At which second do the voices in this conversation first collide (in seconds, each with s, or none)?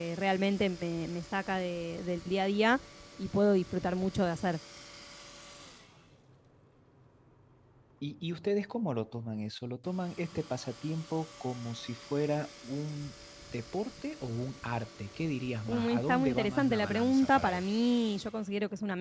15.7 s